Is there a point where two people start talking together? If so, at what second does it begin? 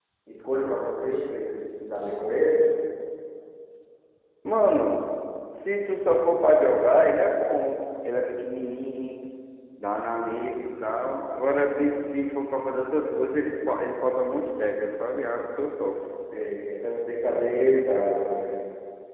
none

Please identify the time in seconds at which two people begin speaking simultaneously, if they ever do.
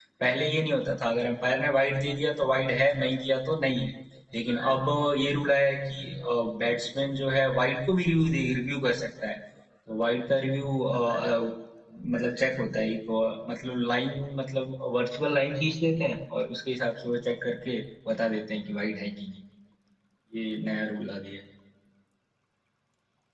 none

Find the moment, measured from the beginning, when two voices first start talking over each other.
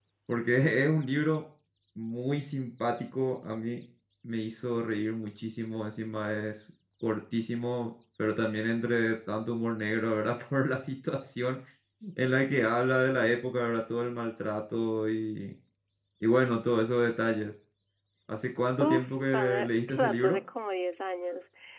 19 s

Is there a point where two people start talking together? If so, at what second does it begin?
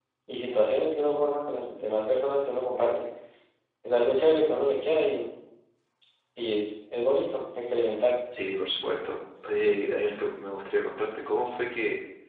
none

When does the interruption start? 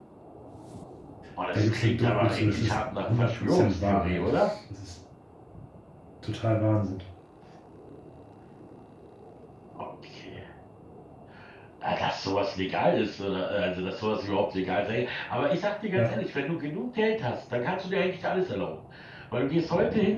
2 s

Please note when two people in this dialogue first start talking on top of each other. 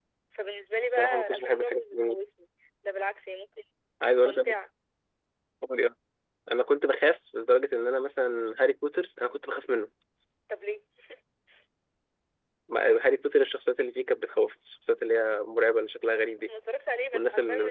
1 s

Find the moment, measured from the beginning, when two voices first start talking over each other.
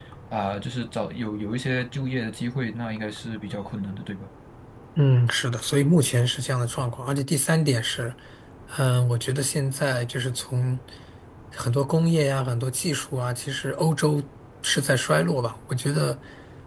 none

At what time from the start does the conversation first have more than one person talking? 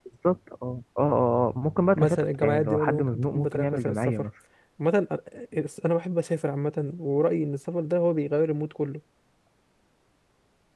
2 s

